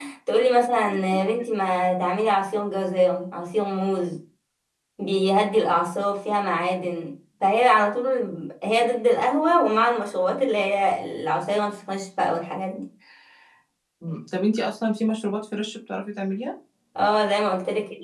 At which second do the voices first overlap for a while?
none

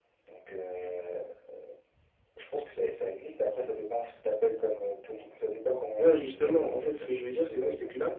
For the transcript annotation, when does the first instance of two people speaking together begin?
6.0 s

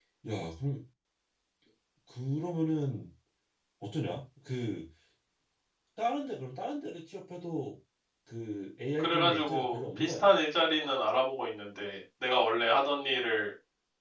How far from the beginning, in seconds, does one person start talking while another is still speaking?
9.0 s

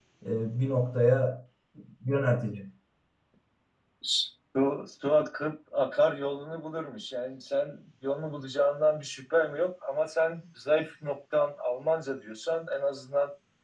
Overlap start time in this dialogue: none

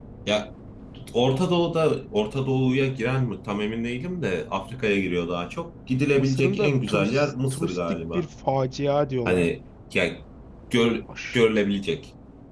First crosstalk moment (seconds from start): 6.1 s

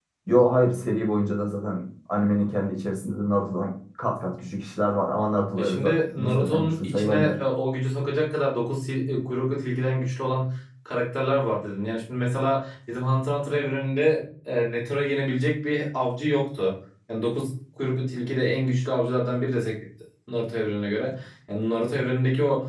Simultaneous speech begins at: 5.6 s

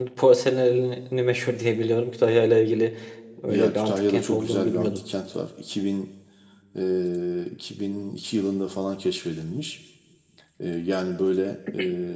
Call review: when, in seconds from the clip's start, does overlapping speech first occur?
3.5 s

